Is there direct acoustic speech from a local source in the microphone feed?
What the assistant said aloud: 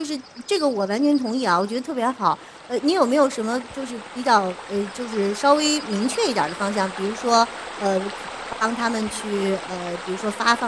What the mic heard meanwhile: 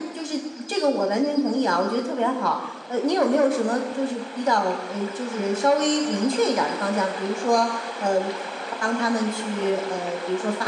No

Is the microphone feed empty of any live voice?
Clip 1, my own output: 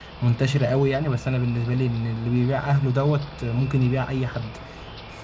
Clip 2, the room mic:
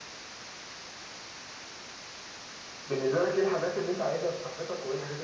No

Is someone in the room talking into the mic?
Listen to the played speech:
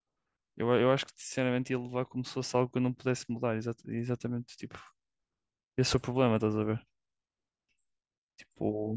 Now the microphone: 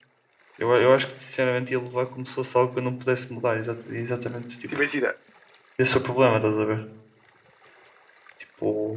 Yes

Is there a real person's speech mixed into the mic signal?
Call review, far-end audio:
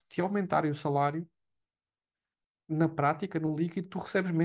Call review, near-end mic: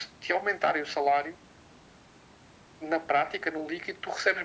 No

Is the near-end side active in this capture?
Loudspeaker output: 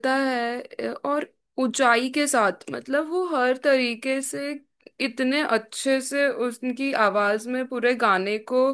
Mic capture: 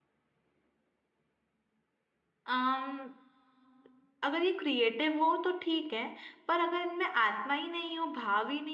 Yes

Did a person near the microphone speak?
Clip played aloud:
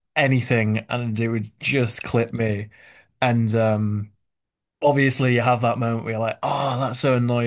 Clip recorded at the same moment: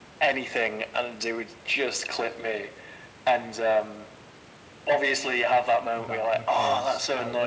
Yes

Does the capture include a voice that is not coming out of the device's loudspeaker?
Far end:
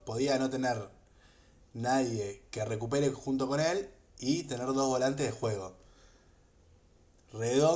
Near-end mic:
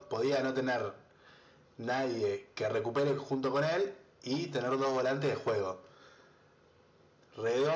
No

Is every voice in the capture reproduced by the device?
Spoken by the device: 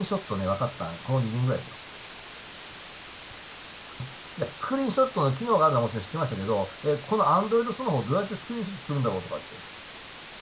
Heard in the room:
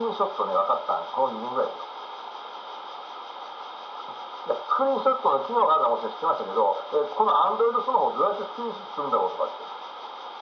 Yes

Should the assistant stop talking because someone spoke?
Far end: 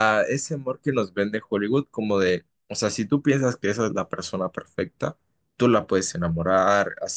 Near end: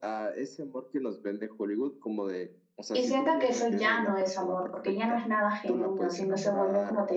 Yes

